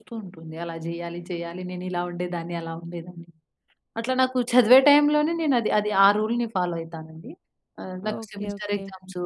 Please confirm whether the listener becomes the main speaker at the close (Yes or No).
No